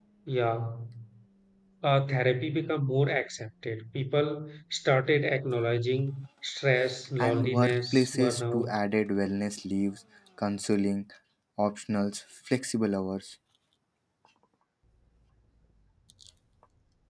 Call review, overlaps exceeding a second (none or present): present